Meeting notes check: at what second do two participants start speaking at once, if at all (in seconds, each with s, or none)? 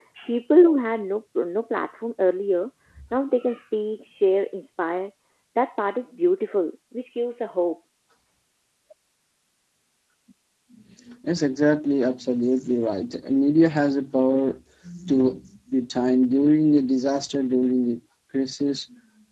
none